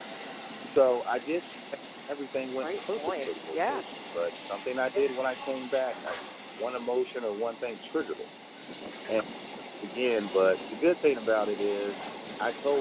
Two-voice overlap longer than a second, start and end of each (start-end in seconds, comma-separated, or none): 2.6-3.8